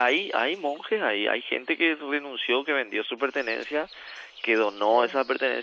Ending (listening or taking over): listening